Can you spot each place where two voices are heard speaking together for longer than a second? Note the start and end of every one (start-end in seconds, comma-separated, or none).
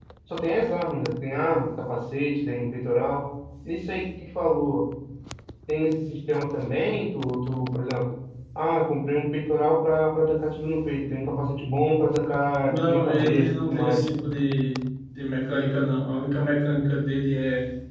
12.7-14.0